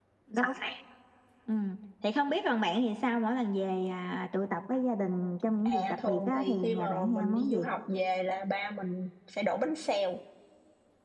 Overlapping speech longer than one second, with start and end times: 5.6-7.7

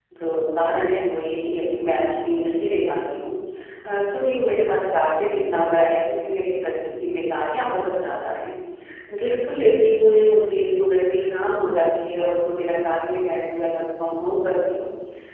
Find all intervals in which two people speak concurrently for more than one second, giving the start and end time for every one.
none

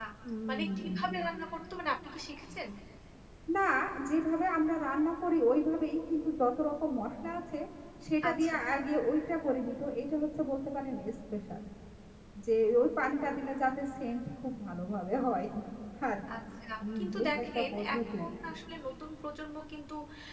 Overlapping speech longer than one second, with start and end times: 17.0-18.2

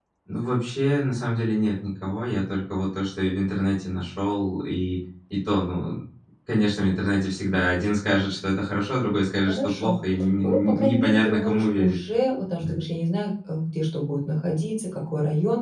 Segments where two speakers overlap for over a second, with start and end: 10.4-12.0

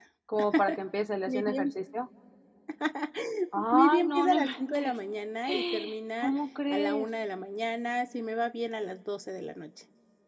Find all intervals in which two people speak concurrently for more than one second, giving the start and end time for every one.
3.7-4.9

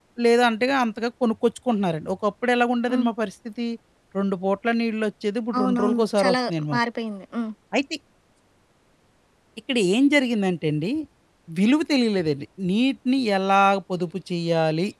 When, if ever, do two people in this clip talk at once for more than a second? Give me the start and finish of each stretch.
5.6-6.8

